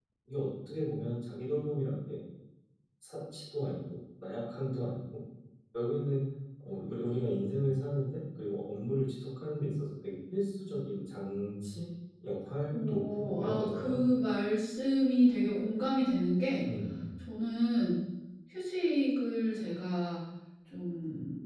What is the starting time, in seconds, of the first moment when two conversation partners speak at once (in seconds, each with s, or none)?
12.7 s